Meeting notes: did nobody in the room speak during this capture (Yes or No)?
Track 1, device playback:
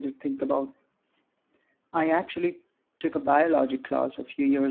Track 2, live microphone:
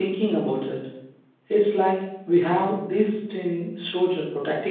No